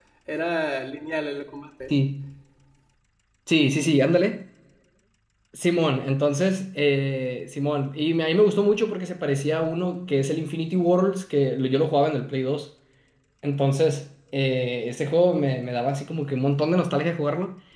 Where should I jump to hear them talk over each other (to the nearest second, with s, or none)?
none